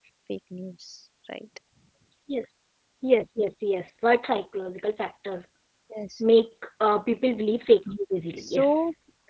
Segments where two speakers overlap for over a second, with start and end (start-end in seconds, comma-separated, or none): none